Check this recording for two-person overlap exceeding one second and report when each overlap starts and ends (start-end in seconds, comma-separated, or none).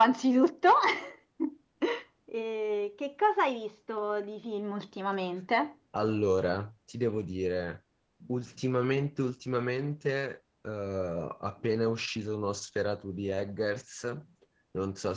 none